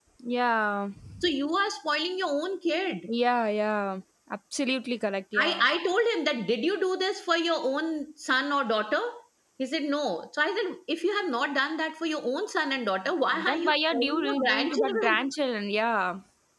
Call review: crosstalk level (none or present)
present